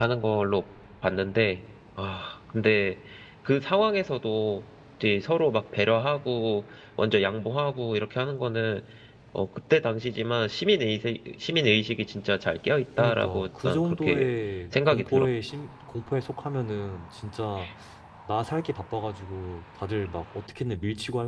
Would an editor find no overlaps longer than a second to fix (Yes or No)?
No